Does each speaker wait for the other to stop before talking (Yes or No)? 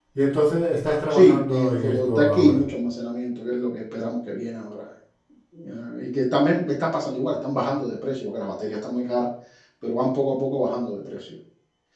No